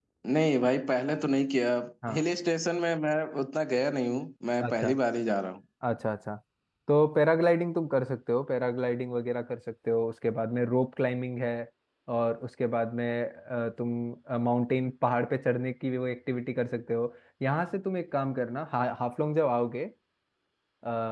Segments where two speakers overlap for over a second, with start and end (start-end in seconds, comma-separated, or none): none